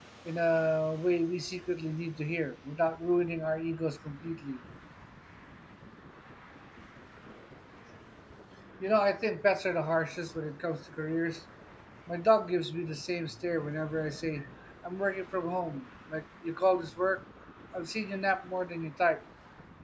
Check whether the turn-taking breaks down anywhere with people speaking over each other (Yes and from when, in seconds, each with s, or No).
No